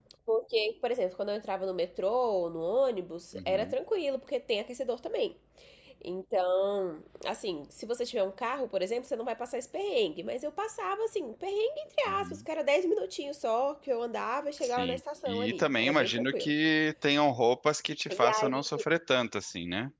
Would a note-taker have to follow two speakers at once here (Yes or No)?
Yes